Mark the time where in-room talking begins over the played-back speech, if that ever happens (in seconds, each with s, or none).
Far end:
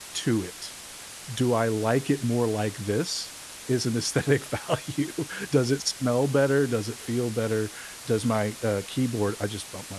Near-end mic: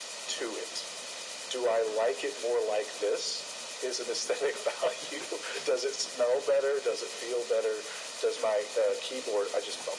none